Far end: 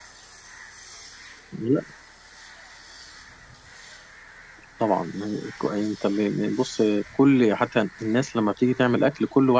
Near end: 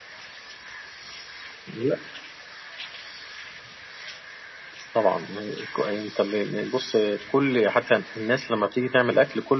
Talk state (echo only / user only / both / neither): echo only